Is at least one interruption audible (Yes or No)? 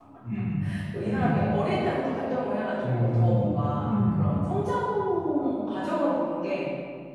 Yes